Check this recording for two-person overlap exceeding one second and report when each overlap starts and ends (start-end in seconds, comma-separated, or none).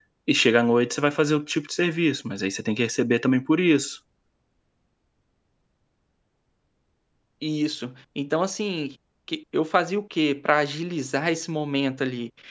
none